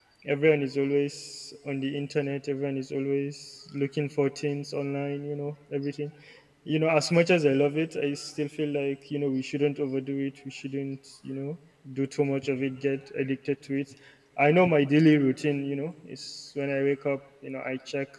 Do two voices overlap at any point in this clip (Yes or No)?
No